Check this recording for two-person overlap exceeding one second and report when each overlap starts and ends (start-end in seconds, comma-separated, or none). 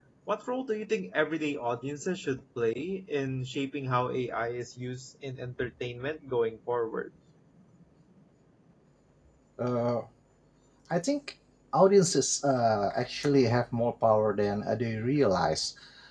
none